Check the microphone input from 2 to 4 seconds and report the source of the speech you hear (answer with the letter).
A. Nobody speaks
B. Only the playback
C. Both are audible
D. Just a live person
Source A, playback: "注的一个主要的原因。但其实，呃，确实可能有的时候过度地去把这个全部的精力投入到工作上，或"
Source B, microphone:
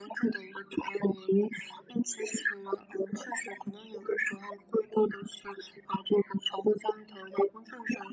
B